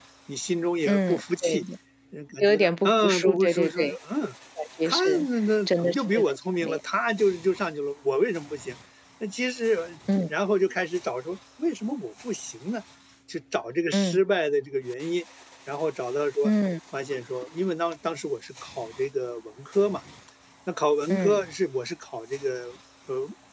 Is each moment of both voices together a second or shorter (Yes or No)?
No